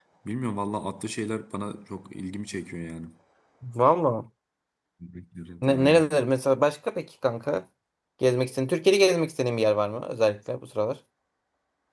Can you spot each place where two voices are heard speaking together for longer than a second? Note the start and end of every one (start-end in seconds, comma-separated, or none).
none